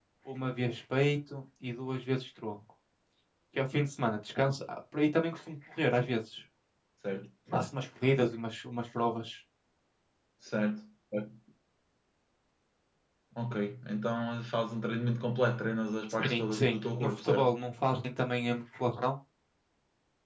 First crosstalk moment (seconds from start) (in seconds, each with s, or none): 16.1 s